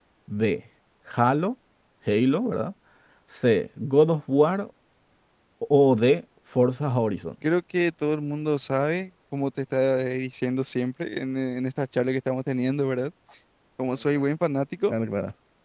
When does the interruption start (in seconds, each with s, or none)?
none